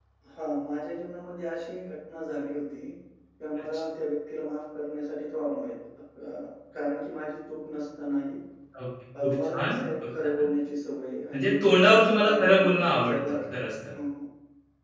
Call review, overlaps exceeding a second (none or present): present